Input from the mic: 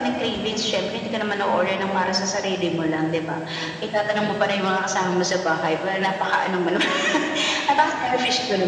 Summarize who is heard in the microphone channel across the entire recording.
echo only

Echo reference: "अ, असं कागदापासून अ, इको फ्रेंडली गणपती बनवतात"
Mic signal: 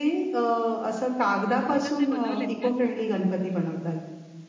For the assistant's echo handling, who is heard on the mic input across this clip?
both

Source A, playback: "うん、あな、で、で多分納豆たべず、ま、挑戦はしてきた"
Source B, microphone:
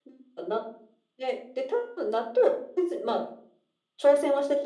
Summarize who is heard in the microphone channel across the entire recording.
echo only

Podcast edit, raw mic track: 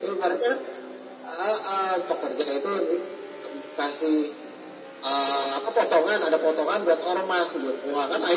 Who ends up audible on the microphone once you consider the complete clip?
echo only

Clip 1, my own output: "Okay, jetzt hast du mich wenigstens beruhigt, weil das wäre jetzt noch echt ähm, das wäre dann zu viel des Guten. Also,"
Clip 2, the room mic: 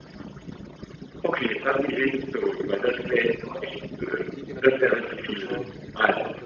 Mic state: both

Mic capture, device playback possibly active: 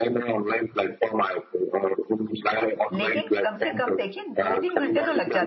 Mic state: both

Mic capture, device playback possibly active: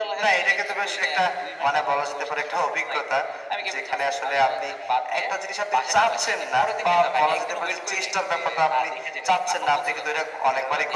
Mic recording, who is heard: echo only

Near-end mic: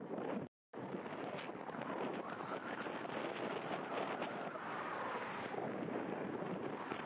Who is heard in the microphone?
neither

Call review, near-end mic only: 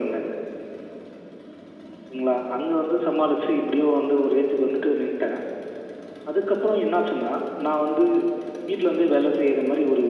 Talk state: echo only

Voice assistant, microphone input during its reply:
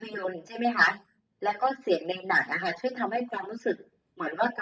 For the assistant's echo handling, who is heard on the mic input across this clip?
echo only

